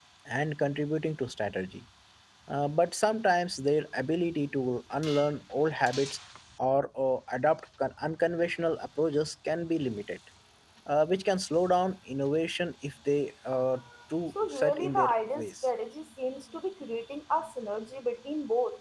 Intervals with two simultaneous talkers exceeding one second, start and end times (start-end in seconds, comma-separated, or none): 14.4-15.7